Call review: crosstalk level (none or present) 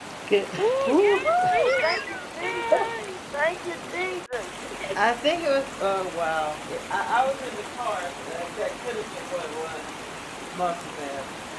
present